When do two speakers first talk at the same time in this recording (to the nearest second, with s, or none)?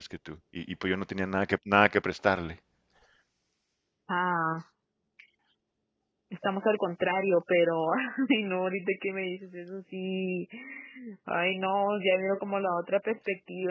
none